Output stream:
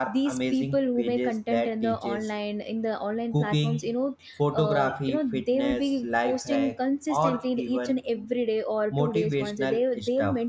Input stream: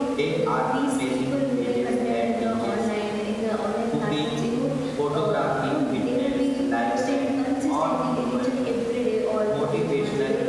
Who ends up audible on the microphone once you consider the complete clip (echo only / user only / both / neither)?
echo only